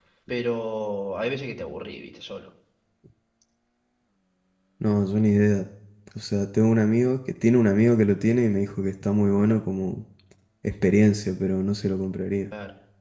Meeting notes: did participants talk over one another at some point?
No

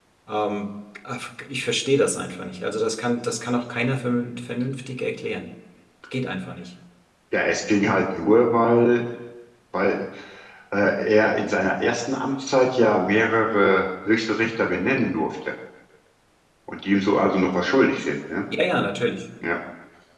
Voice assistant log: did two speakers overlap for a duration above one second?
No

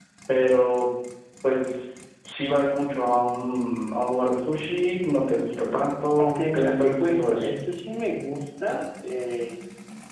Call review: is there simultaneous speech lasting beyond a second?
Yes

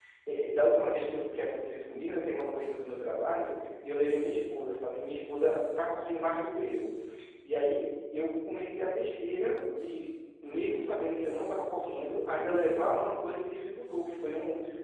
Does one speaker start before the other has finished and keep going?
No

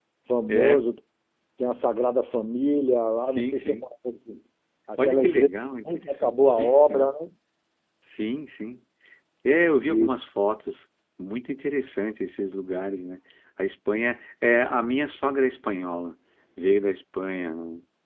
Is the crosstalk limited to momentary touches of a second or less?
No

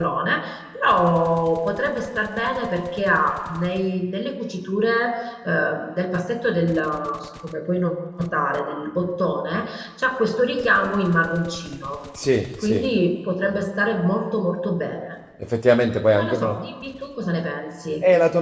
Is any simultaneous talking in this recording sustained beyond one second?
No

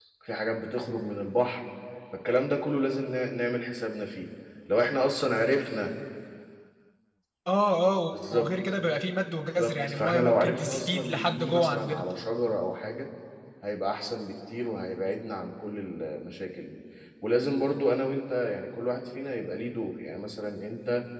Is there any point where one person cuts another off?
Yes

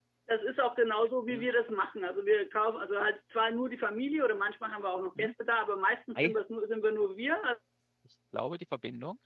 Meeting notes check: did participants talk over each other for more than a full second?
No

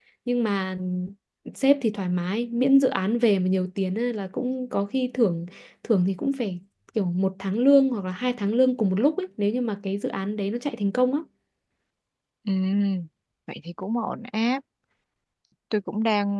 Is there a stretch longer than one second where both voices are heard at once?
No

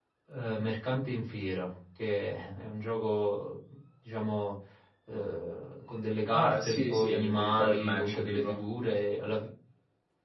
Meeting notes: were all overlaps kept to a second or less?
No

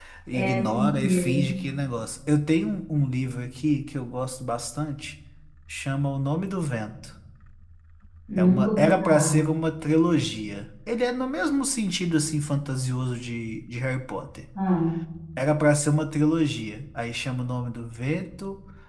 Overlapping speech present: Yes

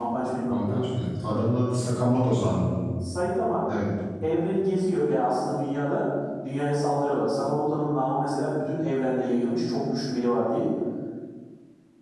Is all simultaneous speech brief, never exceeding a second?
Yes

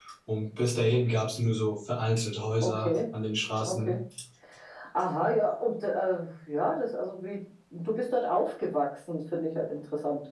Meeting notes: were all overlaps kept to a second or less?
Yes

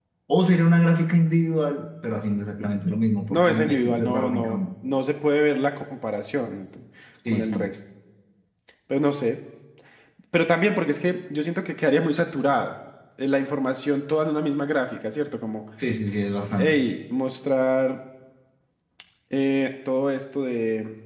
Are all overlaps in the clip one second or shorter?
No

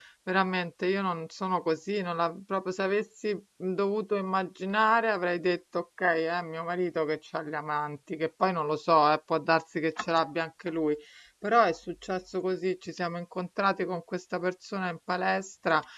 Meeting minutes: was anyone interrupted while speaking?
No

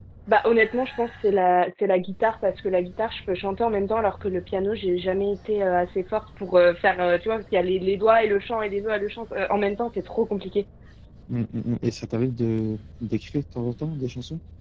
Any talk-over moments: No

